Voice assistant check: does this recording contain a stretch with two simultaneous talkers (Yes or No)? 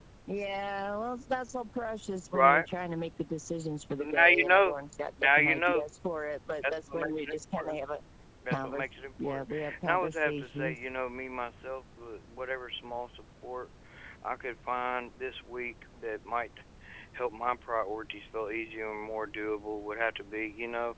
Yes